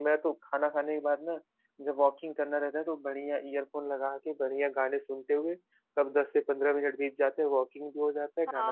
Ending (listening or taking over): taking over